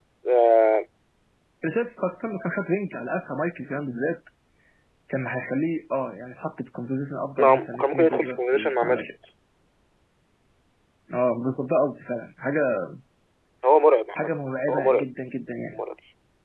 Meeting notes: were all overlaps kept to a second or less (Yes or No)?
No